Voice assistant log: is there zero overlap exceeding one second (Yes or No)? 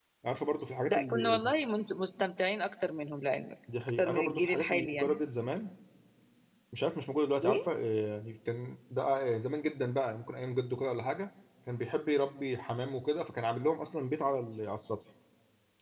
No